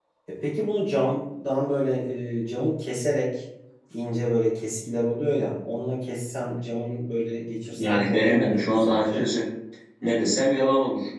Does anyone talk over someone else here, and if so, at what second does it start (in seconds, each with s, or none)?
7.7 s